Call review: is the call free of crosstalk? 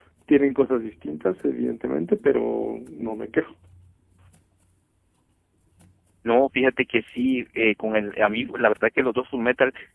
Yes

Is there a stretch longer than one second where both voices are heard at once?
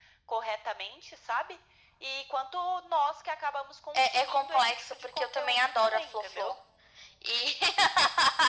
Yes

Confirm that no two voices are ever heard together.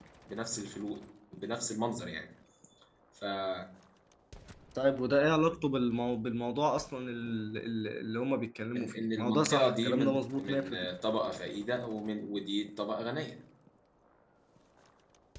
No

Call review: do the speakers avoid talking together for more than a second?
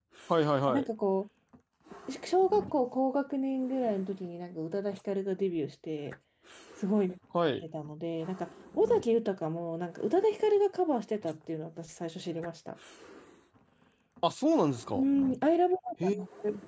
Yes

